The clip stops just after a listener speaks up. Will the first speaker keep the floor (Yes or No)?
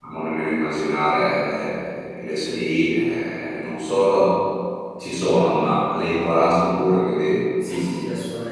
No